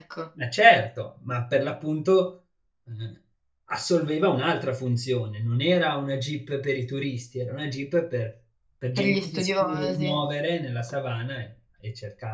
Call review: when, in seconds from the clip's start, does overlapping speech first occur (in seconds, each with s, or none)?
9.0 s